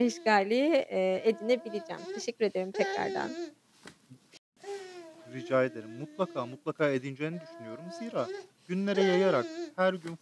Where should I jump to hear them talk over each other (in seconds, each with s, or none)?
none